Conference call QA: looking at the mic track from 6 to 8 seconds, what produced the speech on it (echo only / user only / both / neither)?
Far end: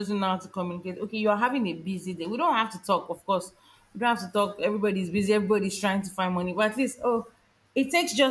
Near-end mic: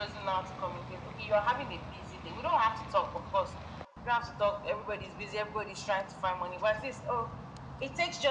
echo only